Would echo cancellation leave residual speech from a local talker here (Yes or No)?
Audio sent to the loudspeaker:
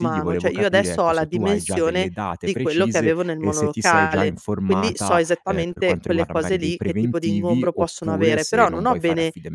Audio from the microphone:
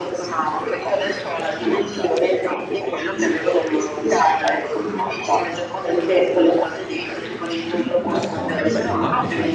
Yes